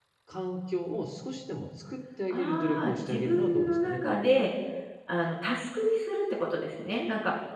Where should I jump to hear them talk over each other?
2.3 s

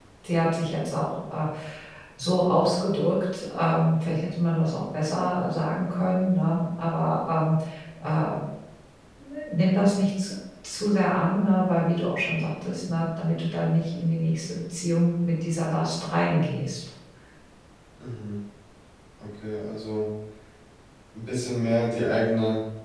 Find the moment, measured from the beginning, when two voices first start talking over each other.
none

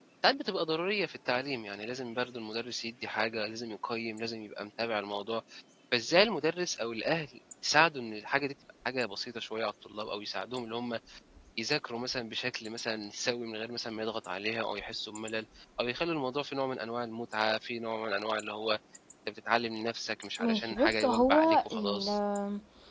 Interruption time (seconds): 20.4 s

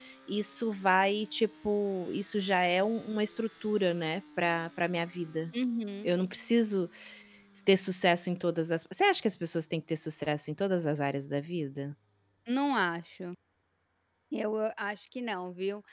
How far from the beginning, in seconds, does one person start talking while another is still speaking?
none

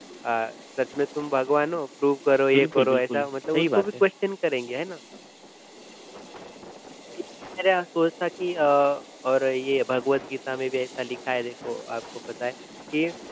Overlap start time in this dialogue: 2.5 s

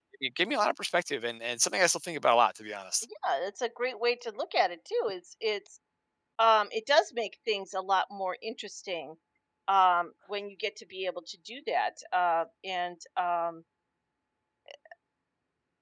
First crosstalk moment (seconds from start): none

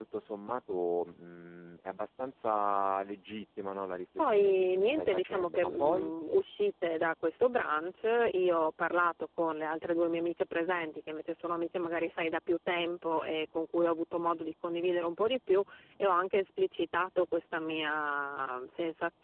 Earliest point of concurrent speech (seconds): 4.2 s

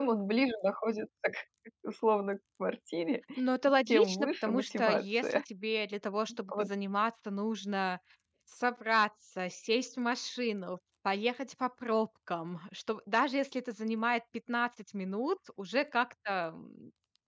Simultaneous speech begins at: 3.9 s

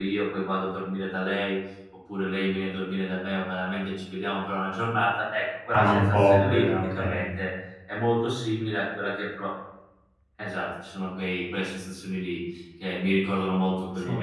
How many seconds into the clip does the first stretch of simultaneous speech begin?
5.8 s

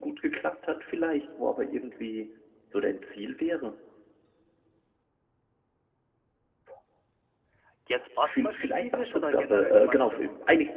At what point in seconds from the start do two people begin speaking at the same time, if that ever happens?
8.2 s

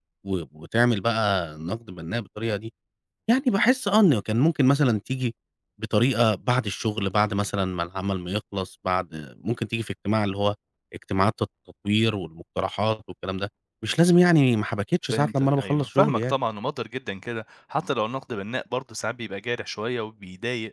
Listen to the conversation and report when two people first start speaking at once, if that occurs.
15.1 s

